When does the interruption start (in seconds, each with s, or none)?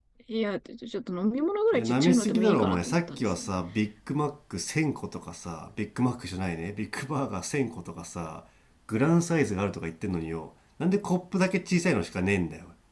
1.7 s